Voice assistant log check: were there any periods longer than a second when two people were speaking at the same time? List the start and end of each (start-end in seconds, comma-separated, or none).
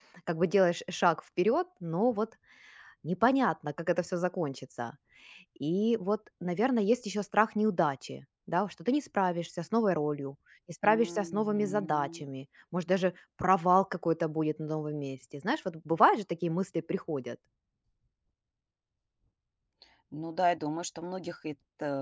10.8-12.2